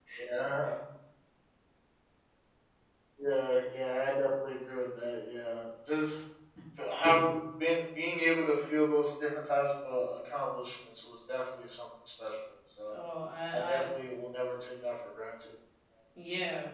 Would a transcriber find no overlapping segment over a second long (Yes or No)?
Yes